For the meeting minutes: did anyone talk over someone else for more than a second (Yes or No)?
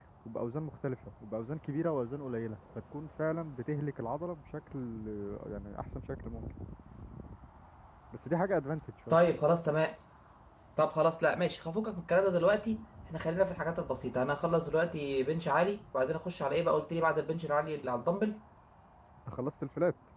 No